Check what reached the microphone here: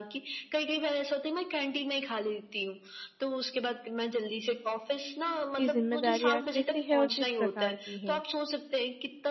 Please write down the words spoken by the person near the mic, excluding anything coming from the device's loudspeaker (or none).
कि ज़िम्मेदारियाँ कैसी हैं और किस प्रकार की हैं?